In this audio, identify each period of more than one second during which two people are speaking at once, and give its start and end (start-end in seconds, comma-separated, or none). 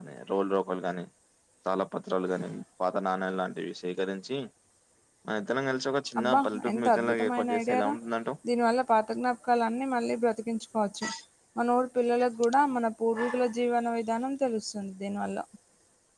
6.2-7.9